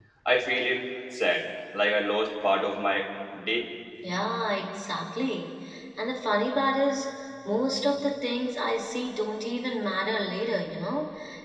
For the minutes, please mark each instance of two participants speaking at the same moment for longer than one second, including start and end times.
none

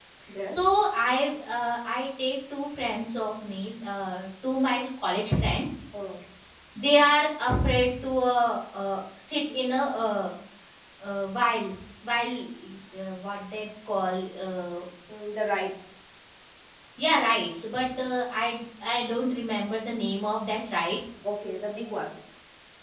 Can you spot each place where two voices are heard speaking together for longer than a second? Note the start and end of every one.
none

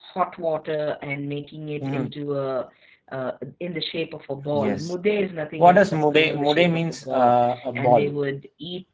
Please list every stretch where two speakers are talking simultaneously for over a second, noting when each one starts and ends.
5.6-7.3

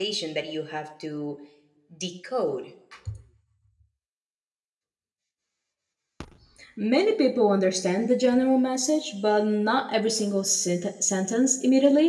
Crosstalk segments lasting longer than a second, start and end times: none

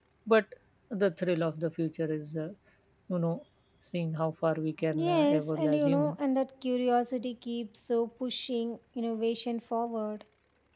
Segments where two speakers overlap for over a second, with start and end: 4.9-6.2

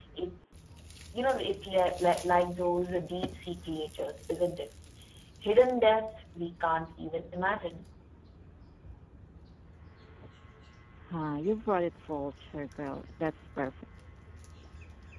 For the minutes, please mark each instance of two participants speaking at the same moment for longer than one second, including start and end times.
none

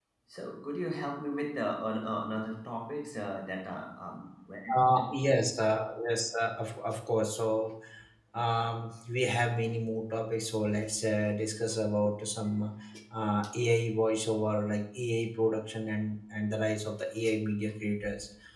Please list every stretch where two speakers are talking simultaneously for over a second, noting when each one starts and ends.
none

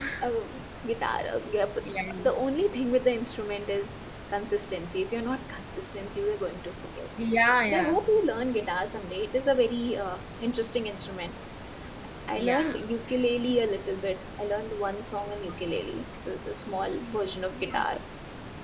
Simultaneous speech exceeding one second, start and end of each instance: none

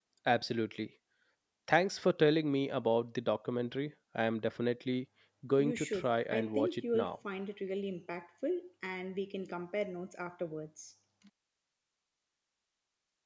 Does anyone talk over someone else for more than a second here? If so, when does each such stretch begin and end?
5.6-7.2

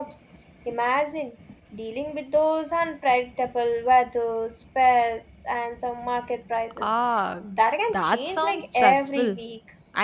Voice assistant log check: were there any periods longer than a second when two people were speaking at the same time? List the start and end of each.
7.9-9.4

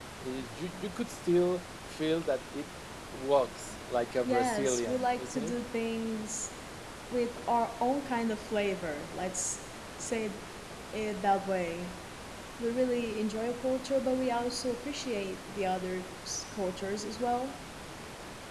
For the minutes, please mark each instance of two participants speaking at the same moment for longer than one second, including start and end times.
4.2-5.6

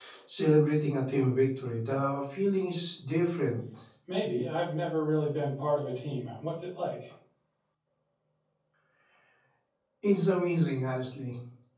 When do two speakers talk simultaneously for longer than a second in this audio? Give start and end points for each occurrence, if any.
none

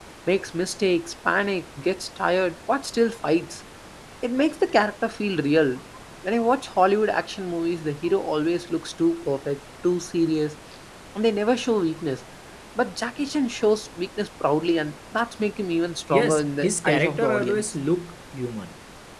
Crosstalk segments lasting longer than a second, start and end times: 16.2-17.6

